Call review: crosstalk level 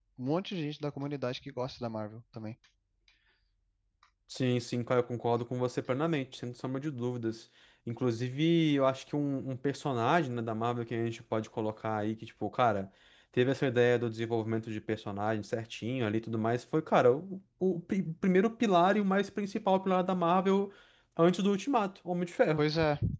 none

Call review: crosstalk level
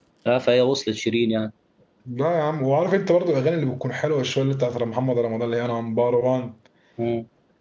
none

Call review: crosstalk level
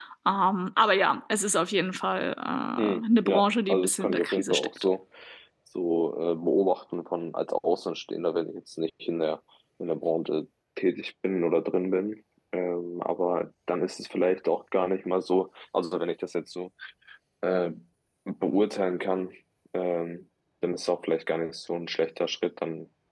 present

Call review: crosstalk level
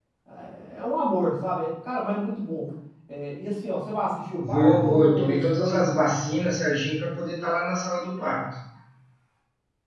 present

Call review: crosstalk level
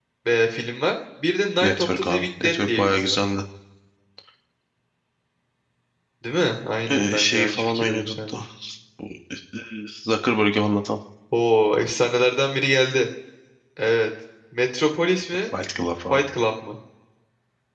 present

